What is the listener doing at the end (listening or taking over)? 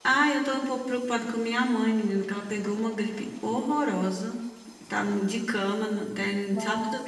listening